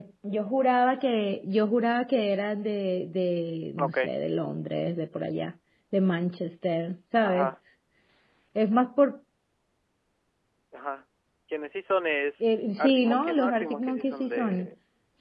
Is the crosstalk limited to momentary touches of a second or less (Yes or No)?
No